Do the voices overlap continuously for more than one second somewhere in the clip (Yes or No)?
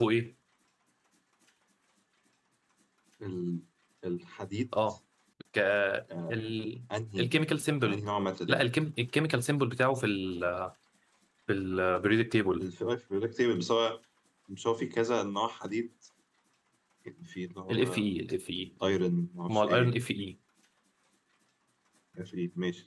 No